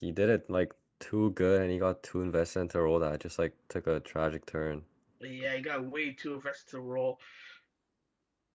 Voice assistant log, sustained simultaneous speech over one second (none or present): none